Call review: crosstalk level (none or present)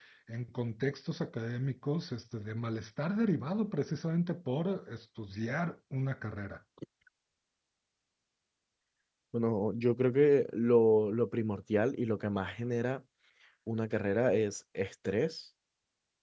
none